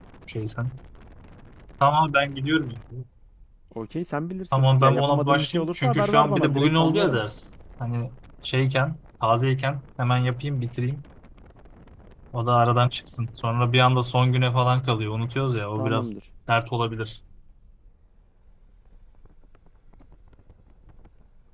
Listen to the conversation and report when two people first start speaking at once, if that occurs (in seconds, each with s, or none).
4.6 s